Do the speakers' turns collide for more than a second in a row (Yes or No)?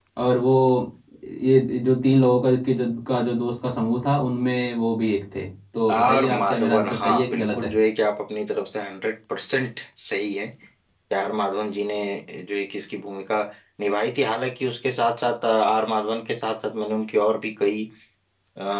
Yes